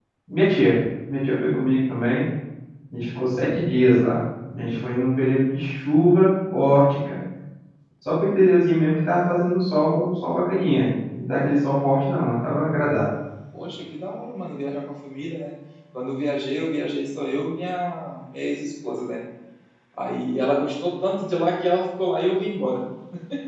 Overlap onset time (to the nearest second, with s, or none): none